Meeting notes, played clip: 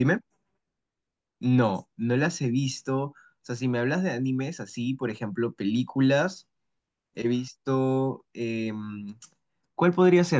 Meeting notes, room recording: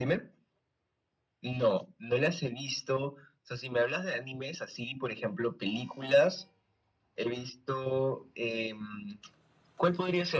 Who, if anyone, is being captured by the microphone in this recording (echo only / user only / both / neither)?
echo only